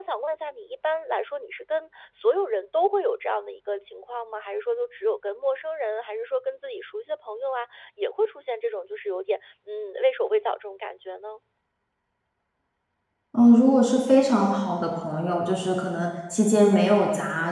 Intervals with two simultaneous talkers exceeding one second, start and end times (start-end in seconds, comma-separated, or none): none